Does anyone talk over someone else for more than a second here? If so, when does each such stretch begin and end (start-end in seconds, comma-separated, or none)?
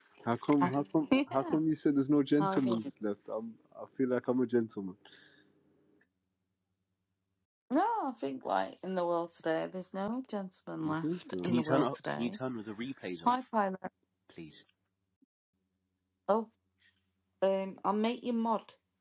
10.8-12.4